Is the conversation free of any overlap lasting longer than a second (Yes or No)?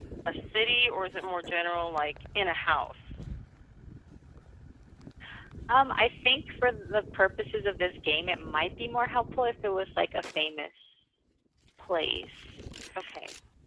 Yes